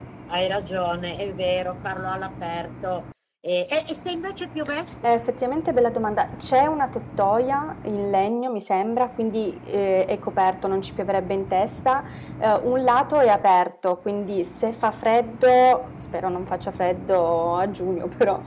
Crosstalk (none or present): none